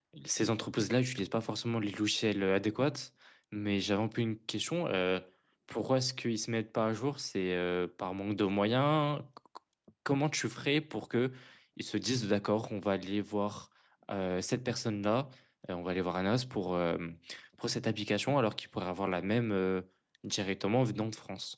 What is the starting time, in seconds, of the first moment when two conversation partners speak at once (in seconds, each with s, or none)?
none